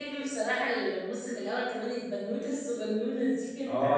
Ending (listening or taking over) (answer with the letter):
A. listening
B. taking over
B